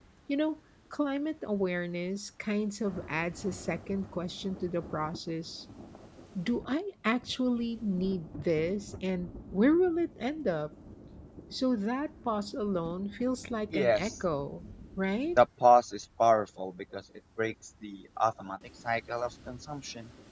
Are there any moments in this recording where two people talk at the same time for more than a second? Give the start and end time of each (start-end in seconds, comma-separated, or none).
none